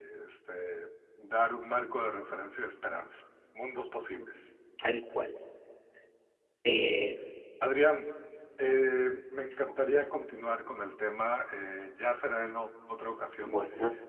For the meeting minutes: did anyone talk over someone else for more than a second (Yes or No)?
No